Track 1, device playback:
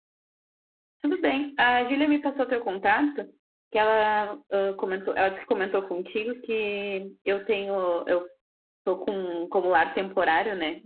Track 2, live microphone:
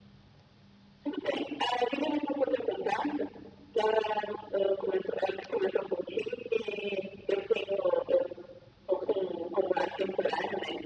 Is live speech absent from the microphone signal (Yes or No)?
Yes